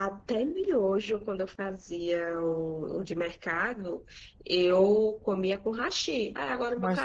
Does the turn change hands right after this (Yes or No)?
Yes